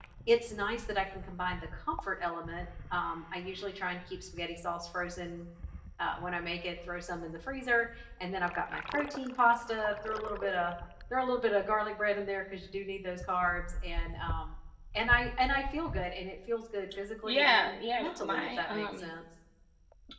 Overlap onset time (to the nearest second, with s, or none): 17 s